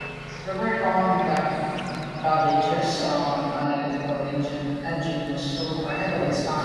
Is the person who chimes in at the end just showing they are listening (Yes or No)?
No